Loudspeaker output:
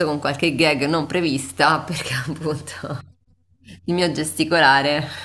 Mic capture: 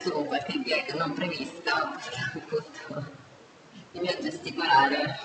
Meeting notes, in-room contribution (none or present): none